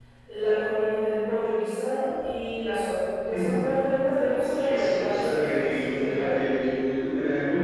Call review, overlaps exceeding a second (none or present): present